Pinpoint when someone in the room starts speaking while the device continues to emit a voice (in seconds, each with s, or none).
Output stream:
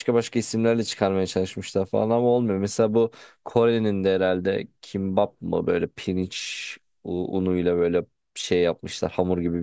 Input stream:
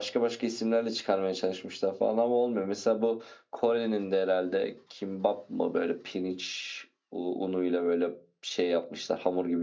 none